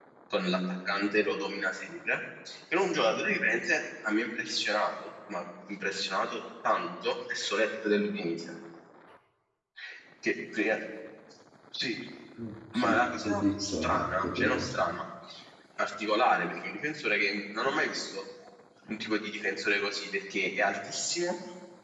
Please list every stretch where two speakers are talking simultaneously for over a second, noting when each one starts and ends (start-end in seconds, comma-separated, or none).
12.7-14.7